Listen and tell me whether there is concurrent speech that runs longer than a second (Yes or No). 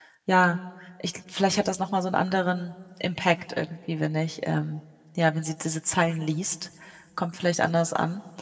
No